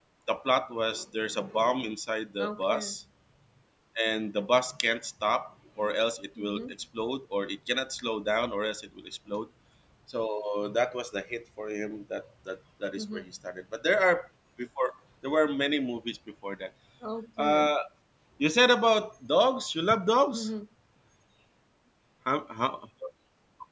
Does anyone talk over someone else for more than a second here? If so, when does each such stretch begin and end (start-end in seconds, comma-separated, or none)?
none